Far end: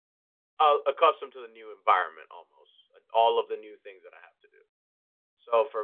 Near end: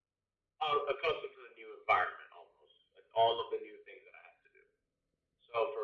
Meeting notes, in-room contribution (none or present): none